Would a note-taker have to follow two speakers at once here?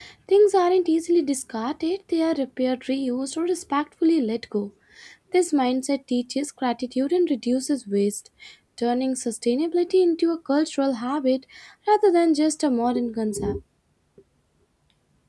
No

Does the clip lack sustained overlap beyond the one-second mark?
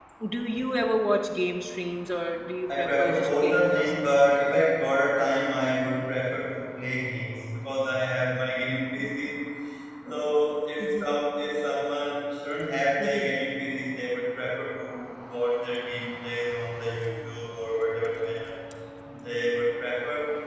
No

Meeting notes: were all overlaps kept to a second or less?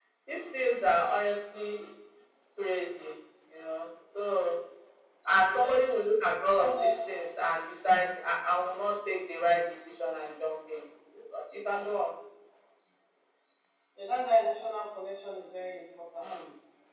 Yes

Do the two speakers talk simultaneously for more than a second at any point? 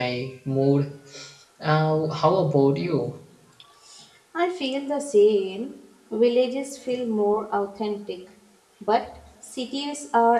No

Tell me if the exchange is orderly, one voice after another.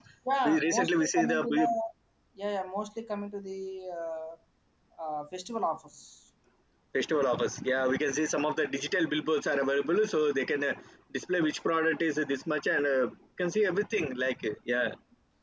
No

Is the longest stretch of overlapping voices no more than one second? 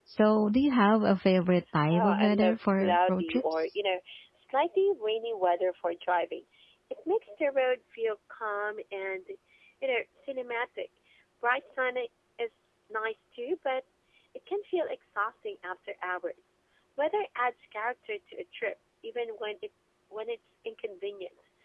No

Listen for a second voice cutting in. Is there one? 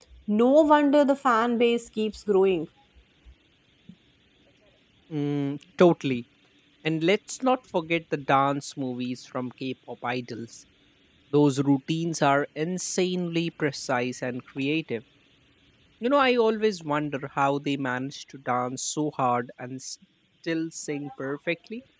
No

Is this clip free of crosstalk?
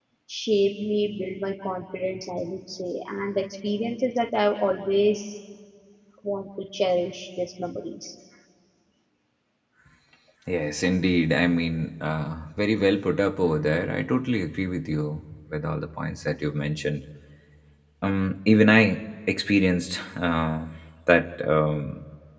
Yes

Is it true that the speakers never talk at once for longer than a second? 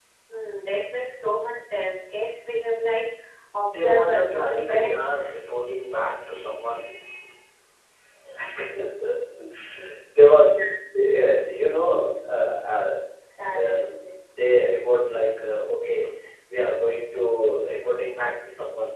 No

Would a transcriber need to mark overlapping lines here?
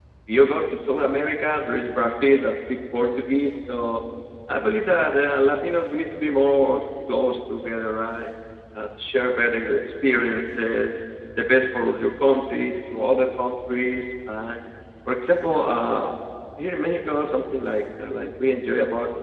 No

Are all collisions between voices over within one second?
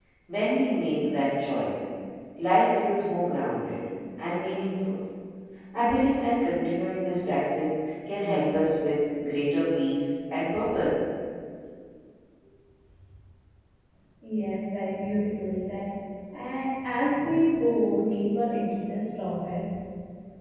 Yes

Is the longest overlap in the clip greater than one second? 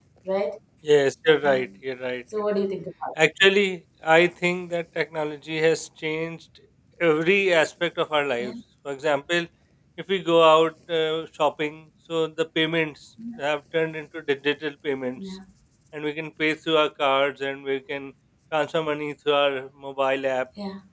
No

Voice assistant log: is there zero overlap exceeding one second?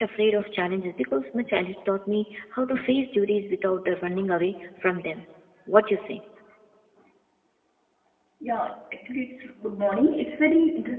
Yes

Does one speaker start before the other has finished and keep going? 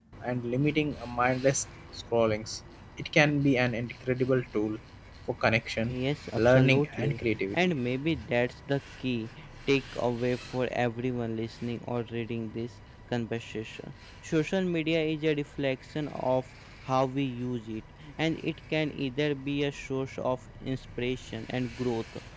Yes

